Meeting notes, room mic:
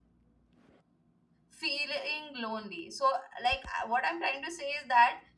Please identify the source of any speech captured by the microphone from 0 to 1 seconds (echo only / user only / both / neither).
neither